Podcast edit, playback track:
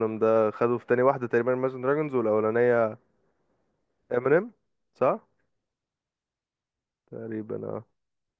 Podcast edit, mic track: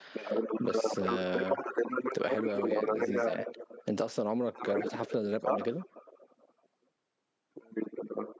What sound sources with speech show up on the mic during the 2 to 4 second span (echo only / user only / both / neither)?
both